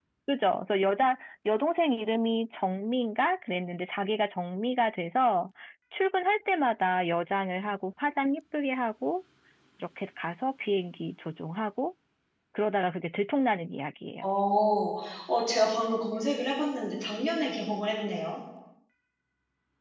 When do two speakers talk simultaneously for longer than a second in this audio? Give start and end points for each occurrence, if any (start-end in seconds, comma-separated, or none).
none